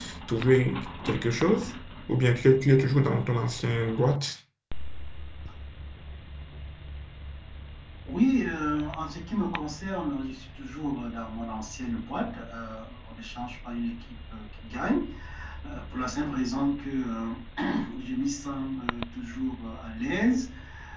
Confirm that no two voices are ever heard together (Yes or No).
Yes